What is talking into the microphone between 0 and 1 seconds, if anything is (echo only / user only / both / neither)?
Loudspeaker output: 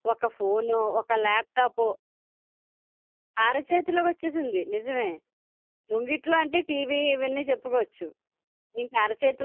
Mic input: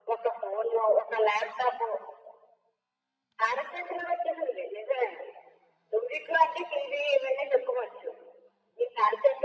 echo only